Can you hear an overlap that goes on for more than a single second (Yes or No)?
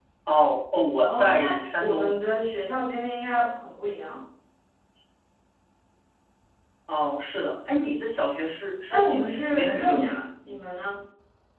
Yes